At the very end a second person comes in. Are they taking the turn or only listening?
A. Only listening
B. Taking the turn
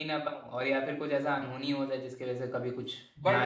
B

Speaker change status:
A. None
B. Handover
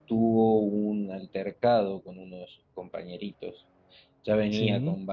A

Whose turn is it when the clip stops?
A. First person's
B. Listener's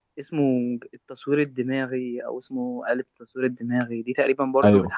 A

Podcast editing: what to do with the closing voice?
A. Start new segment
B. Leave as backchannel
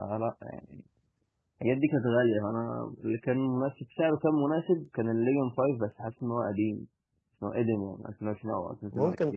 A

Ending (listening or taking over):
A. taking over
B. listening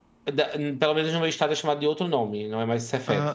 A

